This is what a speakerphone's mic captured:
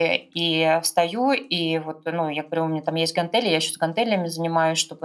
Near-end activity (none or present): present